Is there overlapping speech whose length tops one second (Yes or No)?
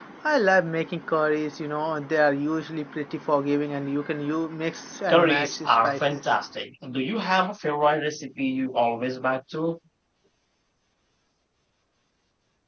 Yes